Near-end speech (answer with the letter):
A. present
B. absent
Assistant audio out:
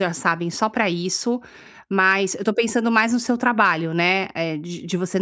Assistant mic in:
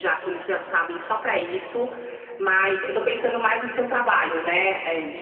B